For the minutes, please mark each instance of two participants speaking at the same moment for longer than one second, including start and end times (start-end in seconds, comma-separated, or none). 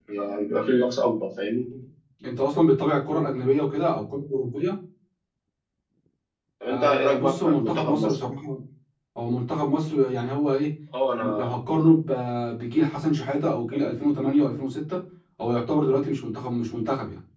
6.7-8.2